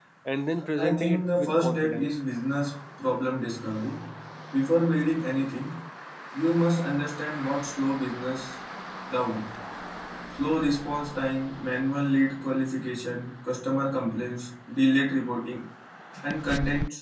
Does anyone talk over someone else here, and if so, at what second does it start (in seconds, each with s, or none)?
0.8 s